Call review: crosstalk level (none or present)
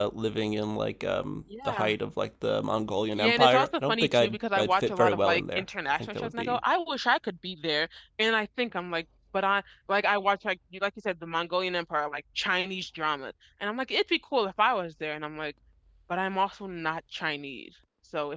present